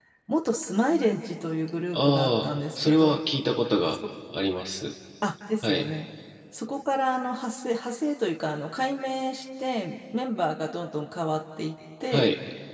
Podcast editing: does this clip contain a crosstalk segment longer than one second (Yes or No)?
Yes